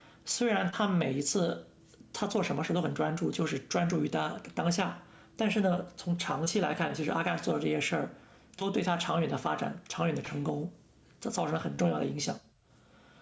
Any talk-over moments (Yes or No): No